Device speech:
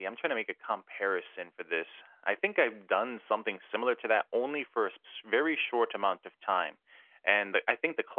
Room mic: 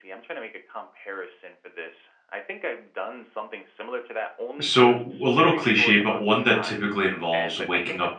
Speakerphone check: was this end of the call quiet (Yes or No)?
No